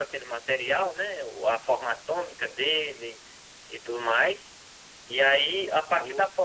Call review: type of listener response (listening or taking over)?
listening